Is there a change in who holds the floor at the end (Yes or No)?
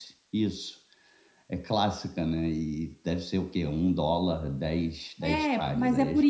Yes